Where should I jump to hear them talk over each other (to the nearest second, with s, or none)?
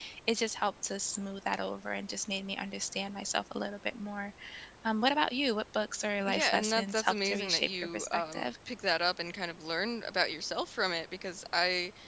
6 s